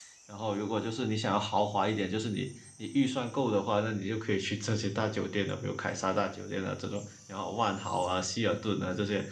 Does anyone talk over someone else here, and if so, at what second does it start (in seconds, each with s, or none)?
none